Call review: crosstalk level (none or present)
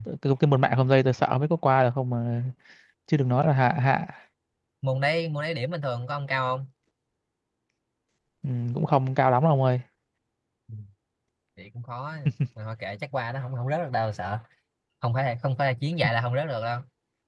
none